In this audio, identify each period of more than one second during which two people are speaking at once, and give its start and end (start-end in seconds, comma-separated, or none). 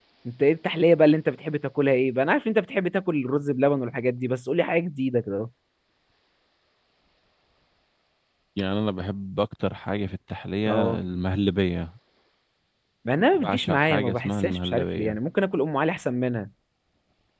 13.3-15.2